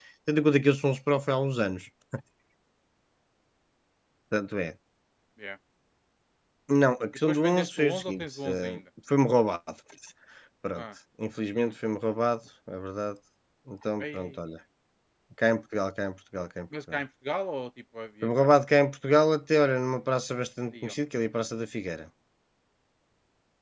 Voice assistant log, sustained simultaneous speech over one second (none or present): present